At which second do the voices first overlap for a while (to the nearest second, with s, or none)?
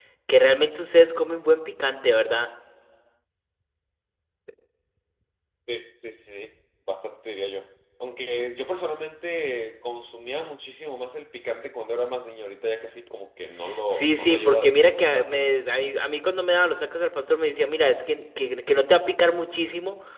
14 s